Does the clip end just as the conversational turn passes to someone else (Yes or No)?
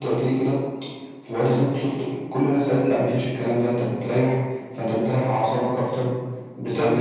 Yes